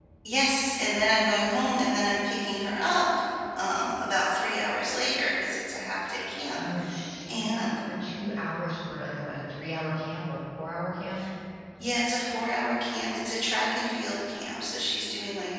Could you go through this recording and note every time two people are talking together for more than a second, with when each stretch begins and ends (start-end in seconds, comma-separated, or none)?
none